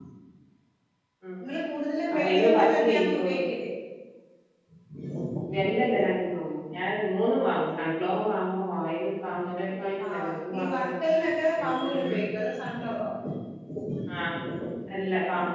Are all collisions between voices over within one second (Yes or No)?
No